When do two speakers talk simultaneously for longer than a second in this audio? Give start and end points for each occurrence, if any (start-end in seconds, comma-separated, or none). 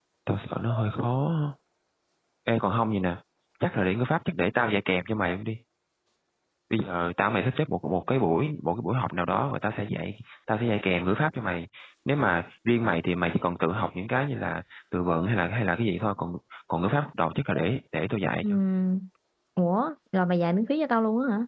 none